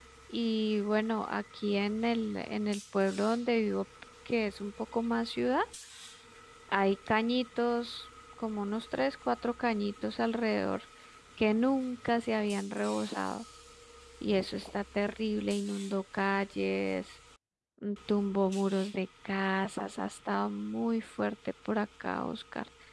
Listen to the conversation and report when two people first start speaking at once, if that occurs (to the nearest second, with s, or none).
none